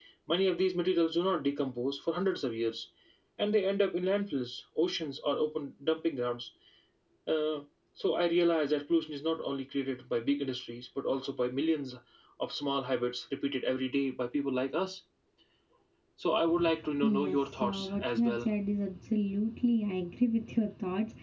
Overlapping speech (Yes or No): Yes